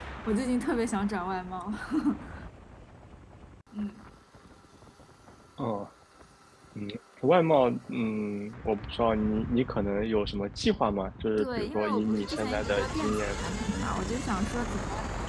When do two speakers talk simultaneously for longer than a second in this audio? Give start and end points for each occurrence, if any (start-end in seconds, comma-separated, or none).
11.4-13.4